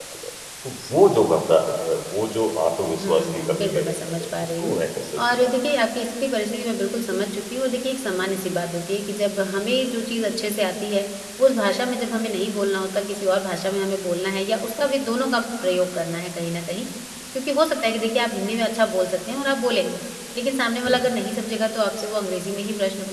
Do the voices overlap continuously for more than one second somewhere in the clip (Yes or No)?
Yes